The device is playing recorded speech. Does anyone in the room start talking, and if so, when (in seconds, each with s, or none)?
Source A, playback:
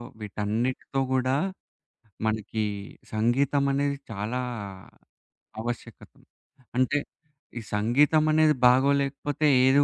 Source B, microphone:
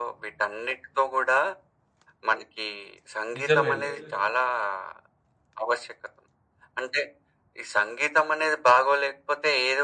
3.4 s